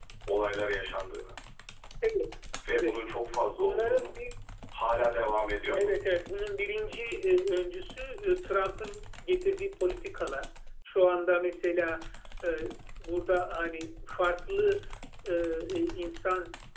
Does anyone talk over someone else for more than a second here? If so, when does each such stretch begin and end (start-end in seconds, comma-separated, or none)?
none